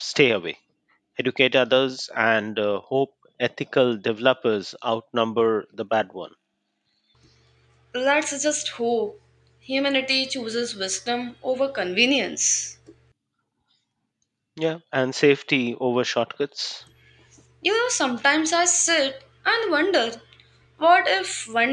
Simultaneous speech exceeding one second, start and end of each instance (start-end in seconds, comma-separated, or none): none